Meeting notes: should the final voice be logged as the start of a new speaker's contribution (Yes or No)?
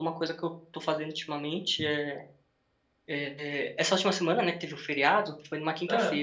No